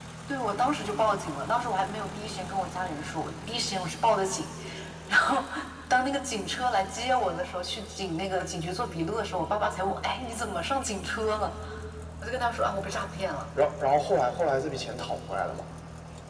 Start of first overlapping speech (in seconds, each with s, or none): none